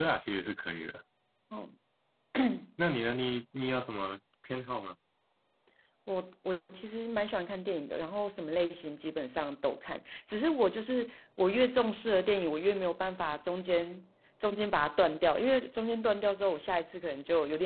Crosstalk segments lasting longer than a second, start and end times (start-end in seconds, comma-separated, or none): none